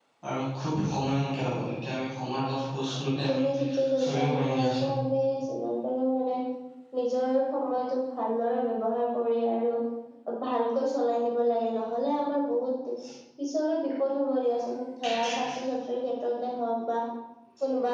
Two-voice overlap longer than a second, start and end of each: 3.0-4.9

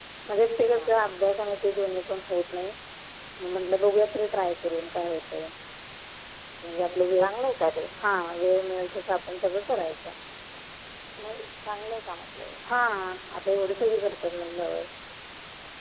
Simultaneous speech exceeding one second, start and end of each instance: none

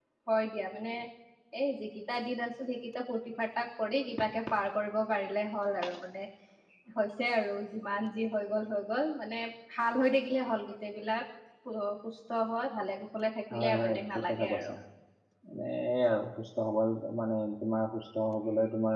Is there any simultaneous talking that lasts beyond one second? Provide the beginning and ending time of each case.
13.5-14.7

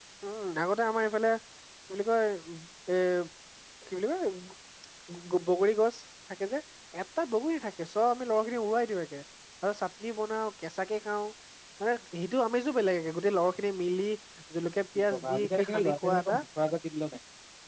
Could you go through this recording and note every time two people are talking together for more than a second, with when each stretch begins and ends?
15.1-16.4

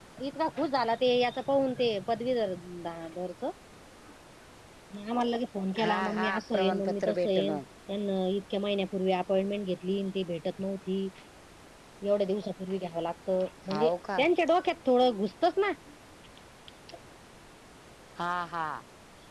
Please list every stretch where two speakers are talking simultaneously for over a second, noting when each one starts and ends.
5.8-7.5

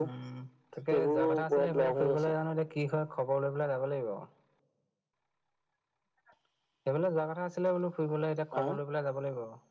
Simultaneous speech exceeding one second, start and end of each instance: 0.9-2.2

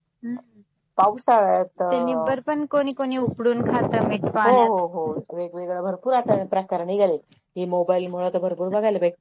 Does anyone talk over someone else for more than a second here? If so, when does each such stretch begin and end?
none

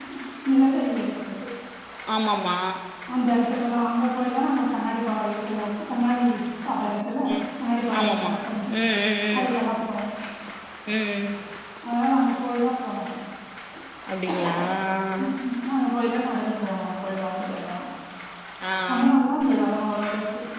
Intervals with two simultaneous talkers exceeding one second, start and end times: none

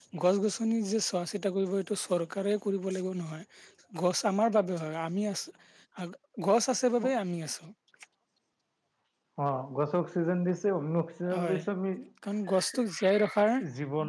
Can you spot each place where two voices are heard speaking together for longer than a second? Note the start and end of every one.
none

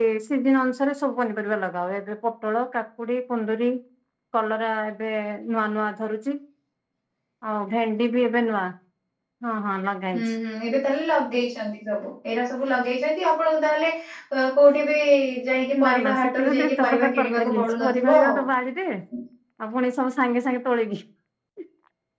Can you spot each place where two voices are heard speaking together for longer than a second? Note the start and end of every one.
15.8-18.4

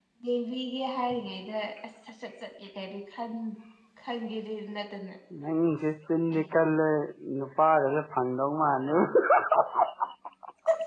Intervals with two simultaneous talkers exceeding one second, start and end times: none

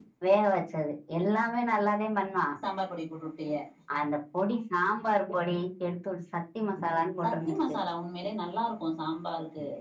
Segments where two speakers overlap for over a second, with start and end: none

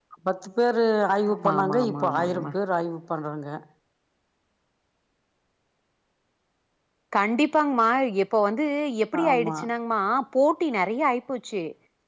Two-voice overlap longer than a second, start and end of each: 1.3-2.5

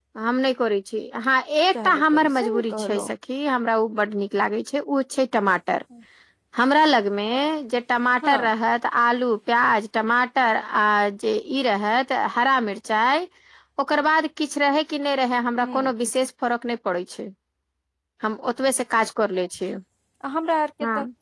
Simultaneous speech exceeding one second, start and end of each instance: 1.8-3.0

